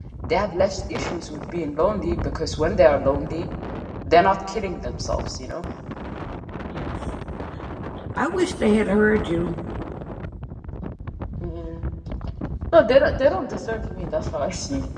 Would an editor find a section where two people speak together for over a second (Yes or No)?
No